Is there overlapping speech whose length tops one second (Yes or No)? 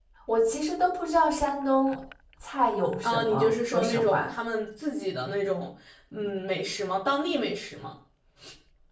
Yes